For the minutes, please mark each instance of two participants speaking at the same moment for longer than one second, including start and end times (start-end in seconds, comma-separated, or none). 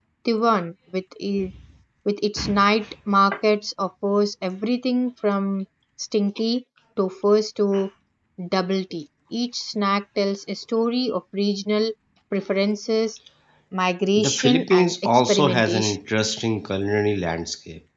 14.2-16.0